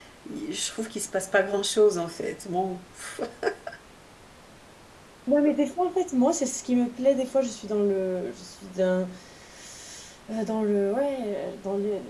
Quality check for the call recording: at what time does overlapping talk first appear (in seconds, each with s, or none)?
none